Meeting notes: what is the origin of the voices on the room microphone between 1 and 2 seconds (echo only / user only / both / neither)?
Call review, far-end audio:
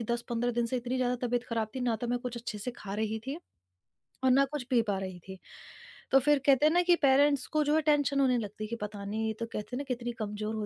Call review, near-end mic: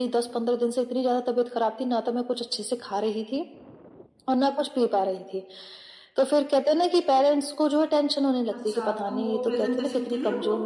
echo only